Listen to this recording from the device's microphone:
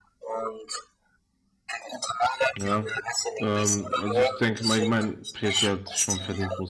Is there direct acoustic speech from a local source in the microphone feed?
Yes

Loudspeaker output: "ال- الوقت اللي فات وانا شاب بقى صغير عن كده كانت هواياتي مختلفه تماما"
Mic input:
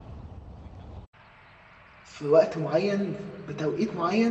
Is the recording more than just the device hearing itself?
Yes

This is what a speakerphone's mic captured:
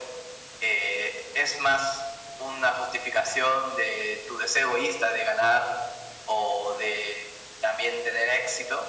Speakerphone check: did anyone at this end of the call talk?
No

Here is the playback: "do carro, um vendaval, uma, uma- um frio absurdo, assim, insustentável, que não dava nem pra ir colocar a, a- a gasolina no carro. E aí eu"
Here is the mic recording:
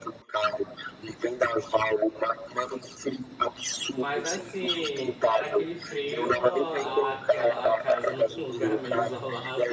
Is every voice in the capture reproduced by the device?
No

